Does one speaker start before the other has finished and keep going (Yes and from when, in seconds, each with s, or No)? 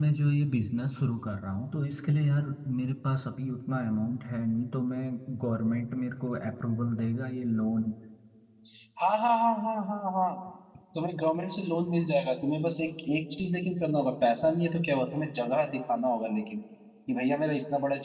No